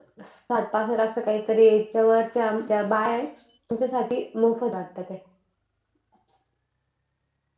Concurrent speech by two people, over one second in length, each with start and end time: none

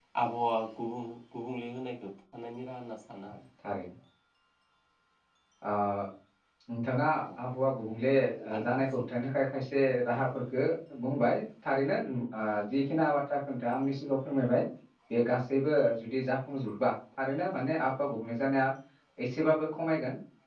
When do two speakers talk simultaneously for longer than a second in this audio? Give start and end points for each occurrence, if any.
none

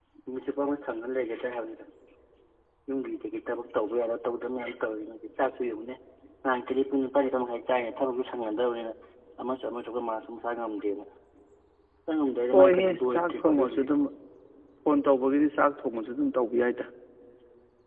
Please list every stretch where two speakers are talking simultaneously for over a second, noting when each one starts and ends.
12.5-13.8

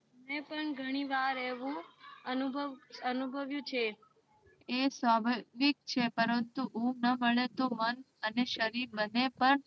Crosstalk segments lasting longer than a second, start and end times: none

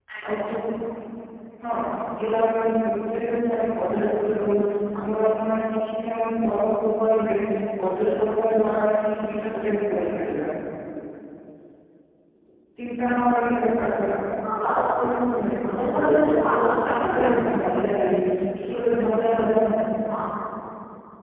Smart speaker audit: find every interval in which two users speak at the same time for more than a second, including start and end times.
15.7-17.4

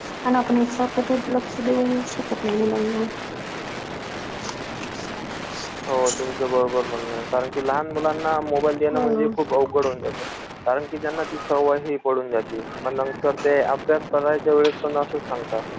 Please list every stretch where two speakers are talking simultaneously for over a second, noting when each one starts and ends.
none

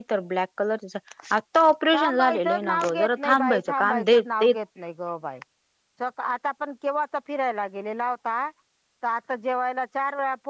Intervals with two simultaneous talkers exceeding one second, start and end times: 2.0-4.5

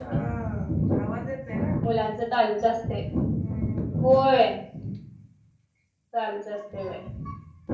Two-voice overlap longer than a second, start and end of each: none

